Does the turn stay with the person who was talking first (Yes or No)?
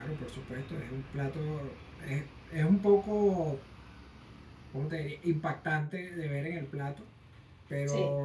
Yes